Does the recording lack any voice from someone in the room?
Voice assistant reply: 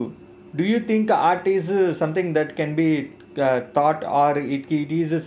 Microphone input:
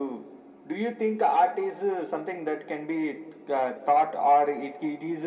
Yes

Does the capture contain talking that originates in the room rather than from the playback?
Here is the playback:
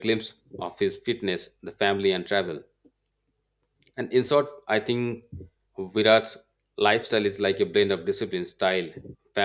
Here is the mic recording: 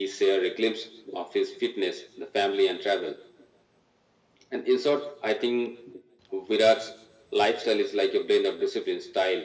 No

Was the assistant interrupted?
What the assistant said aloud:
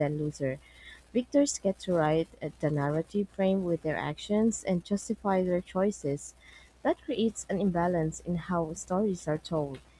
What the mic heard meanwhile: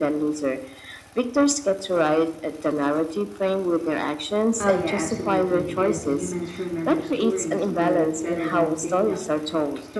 Yes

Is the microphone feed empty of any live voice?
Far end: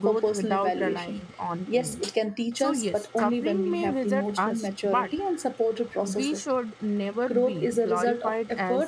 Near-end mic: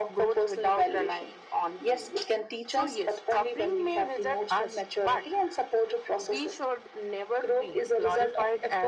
Yes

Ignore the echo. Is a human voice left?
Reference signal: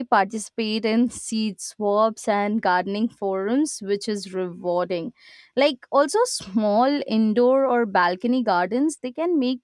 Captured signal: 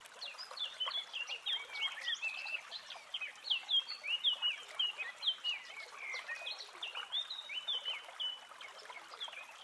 No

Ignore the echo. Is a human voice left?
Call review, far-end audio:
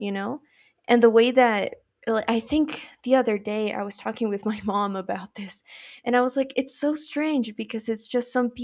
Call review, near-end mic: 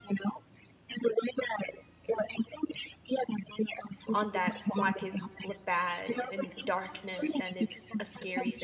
Yes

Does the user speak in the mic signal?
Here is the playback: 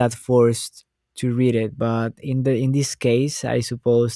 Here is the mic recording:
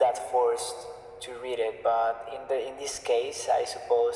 No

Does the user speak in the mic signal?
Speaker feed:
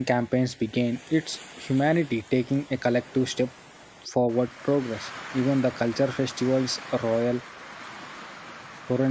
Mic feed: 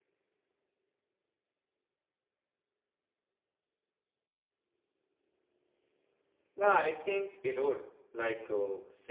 Yes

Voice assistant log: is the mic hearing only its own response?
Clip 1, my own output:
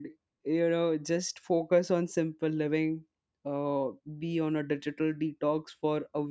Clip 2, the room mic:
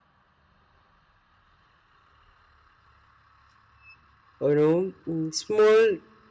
No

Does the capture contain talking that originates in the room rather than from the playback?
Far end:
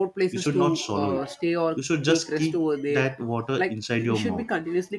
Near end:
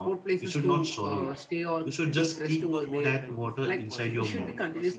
Yes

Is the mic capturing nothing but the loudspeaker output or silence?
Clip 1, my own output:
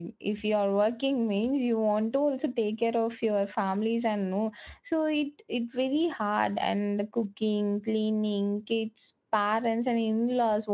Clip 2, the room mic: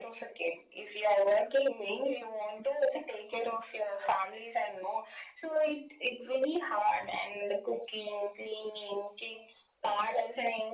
Yes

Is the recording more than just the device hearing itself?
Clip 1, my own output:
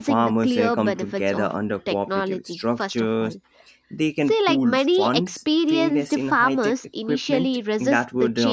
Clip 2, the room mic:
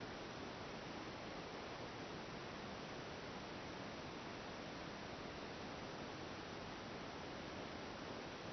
No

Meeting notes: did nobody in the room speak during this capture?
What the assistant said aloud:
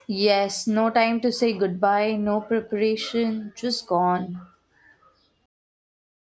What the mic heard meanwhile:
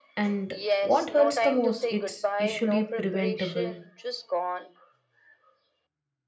No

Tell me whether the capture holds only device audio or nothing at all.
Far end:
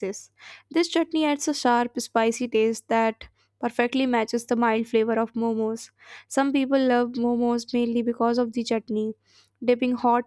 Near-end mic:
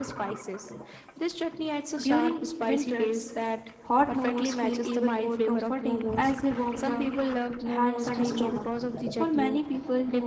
No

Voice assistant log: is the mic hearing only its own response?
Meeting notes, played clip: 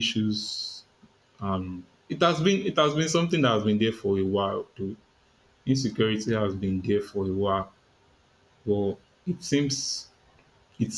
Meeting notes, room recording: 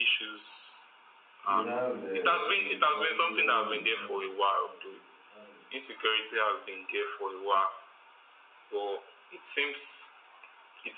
No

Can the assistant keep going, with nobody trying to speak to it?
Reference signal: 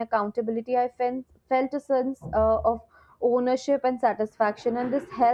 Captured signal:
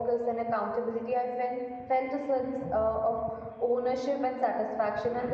Yes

